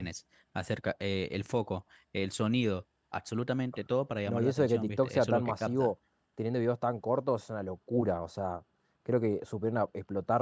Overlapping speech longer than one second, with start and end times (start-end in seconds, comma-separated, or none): 4.3-5.9